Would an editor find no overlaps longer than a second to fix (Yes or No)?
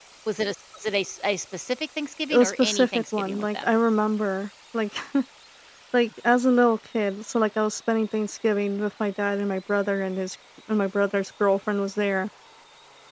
No